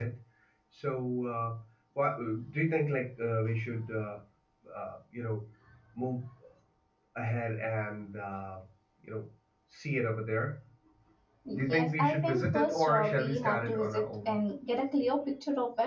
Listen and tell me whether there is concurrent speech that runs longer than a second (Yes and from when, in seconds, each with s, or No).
Yes, from 11.5 s